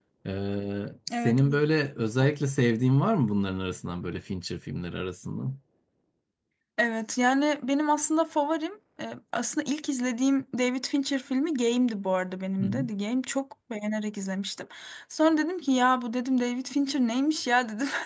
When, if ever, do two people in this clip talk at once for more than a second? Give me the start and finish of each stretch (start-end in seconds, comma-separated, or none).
none